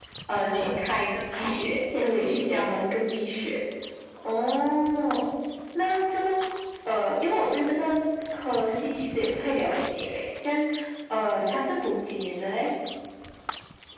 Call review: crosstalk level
present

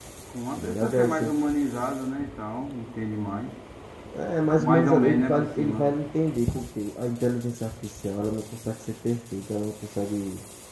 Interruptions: present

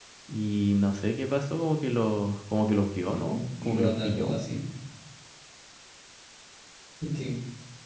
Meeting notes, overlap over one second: present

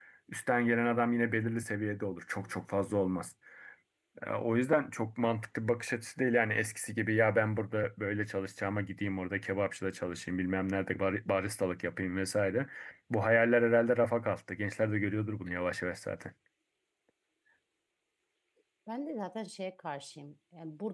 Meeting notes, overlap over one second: none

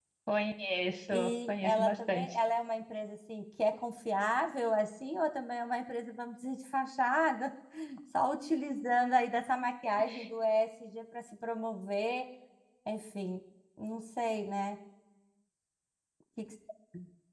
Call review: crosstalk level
present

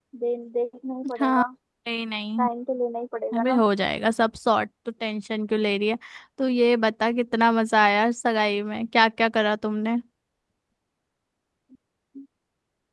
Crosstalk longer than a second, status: none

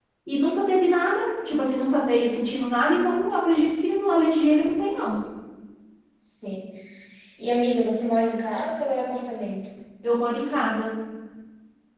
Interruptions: none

